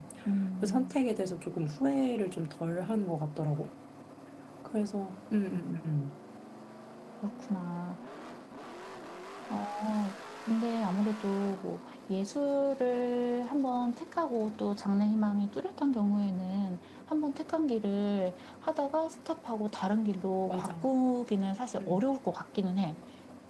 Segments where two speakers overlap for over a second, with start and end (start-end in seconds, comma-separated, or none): none